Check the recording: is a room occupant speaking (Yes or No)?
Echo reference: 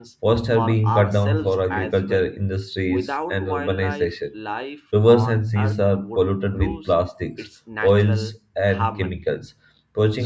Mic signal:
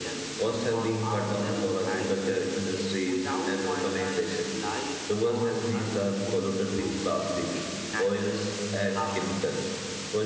No